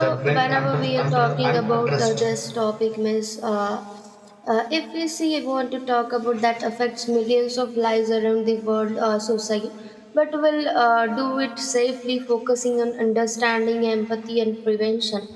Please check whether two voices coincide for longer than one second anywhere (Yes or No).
Yes